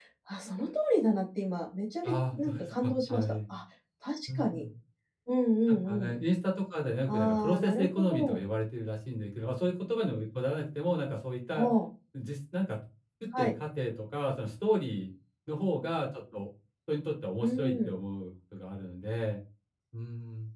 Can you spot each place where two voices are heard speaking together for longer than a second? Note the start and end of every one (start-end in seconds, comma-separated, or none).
2.0-3.4, 7.1-8.4